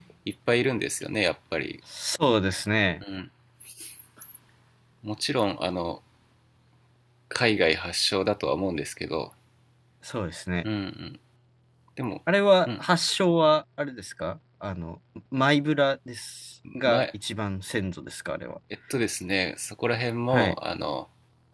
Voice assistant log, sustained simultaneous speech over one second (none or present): none